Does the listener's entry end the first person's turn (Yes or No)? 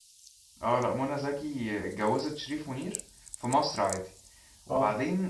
No